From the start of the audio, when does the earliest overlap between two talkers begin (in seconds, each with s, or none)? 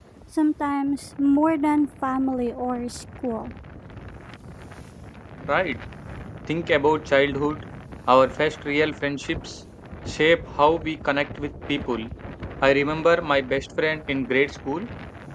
none